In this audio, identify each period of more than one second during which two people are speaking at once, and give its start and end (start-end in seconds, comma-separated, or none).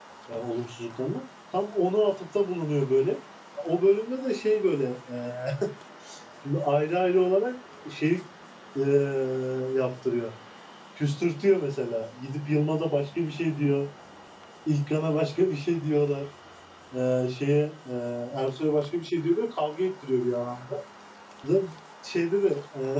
none